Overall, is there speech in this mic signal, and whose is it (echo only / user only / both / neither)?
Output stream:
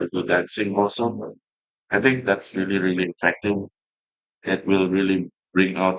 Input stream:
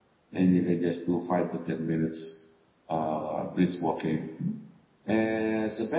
user only